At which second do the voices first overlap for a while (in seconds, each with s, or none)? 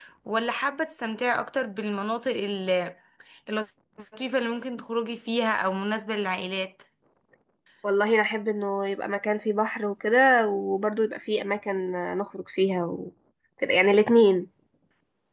none